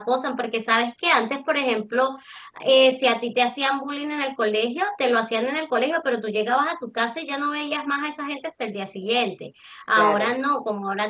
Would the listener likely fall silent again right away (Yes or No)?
Yes